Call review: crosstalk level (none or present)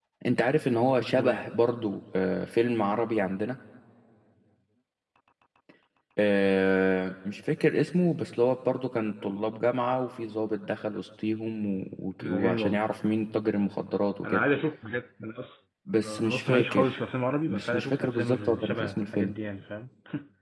present